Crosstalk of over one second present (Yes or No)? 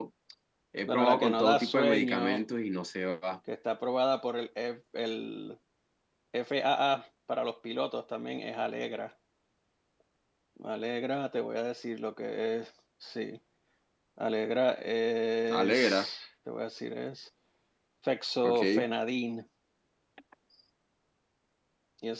Yes